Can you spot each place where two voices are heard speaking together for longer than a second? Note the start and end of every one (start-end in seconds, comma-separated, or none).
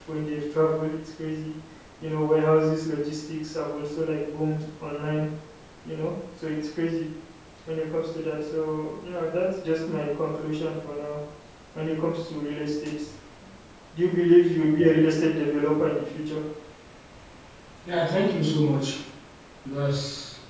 none